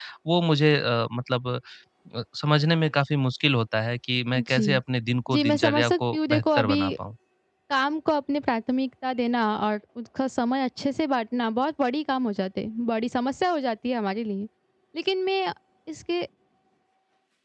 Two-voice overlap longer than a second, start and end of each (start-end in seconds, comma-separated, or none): 5.3-6.8